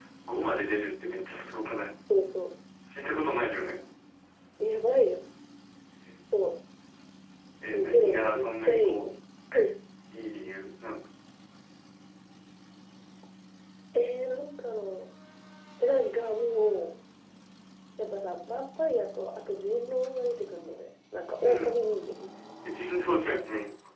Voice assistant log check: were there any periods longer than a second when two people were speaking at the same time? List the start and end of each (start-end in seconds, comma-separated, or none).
7.7-9.0